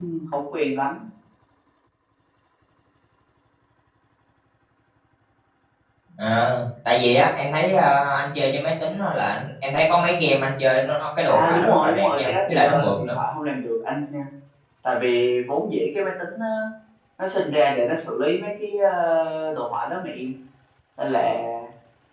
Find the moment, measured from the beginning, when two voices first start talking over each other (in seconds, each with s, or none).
11.3 s